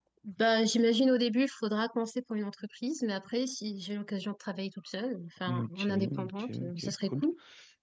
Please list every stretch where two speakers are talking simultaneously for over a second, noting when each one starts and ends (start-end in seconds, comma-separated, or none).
5.5-7.2